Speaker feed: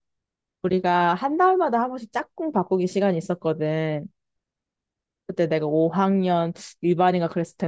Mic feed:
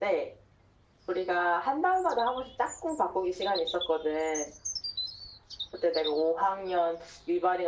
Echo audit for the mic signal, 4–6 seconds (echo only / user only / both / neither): echo only